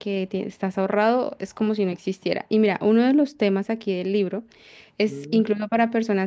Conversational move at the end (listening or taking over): listening